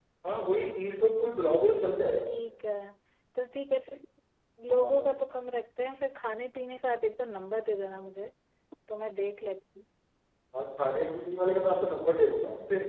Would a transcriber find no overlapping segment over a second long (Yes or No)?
Yes